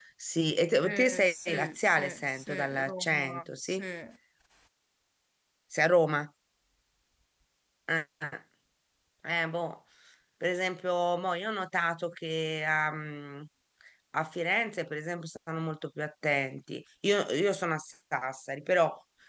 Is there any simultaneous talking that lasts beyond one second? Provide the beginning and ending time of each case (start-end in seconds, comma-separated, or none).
0.8-3.8